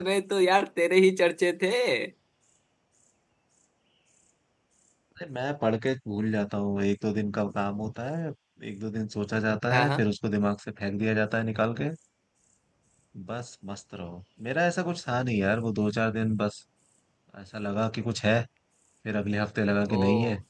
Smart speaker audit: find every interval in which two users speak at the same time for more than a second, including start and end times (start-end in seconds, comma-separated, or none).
none